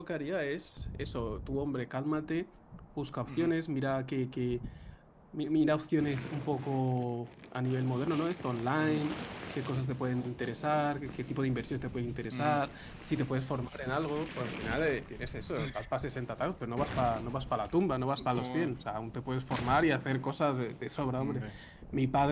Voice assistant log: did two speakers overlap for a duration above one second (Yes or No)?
No